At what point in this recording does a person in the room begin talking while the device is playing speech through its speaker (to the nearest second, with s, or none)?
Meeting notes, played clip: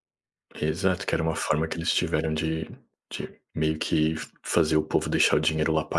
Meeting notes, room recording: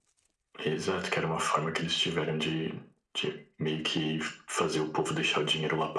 none